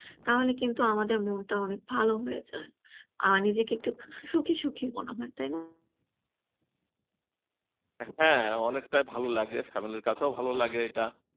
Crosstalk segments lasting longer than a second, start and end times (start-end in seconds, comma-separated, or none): none